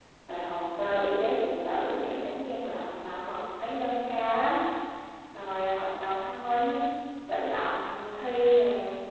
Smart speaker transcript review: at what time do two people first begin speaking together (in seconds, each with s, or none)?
none